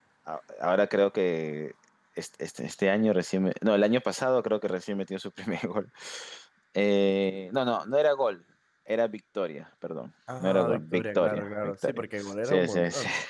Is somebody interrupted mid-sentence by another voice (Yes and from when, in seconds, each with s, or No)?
Yes, from 10.3 s